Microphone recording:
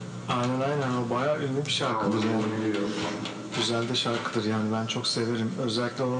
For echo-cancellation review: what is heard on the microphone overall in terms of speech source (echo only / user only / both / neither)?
both